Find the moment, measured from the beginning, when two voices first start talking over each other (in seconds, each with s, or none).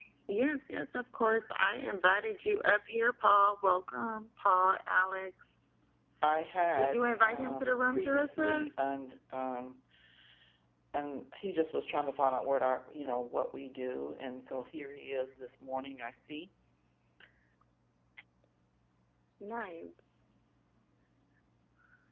6.8 s